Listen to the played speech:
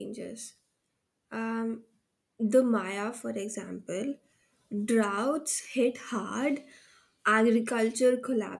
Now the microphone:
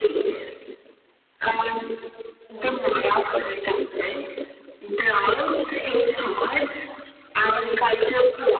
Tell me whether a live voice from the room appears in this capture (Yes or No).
No